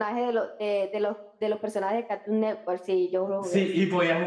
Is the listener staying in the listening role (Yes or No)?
No